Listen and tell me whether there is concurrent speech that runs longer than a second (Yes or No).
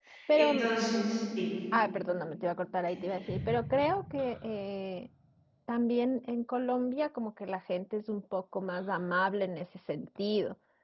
No